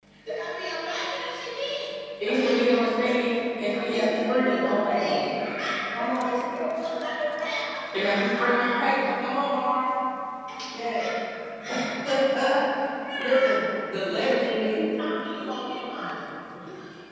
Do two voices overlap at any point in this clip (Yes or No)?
Yes